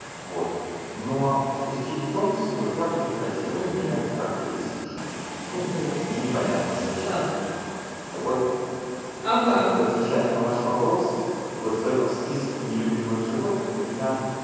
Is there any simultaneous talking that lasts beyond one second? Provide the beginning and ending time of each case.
none

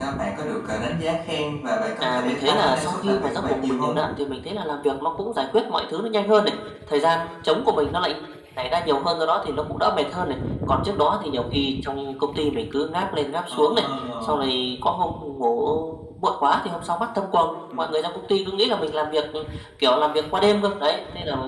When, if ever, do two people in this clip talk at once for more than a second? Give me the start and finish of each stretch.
2.0-4.0

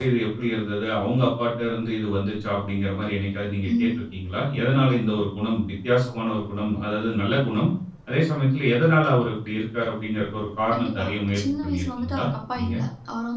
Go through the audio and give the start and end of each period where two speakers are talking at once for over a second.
11.4-12.7

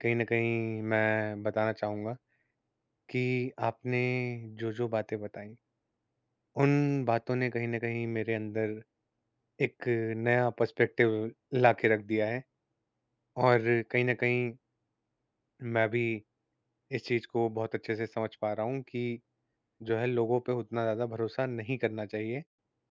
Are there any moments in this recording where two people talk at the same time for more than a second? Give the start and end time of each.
none

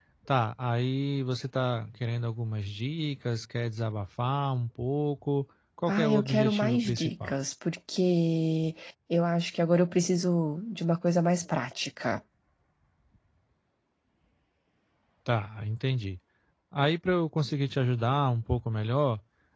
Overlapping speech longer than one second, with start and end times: 5.9-7.3

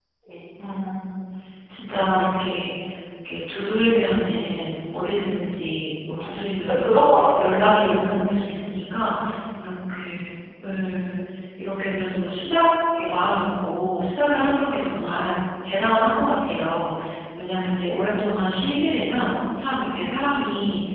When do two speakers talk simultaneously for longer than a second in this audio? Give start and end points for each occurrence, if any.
6.2-7.9

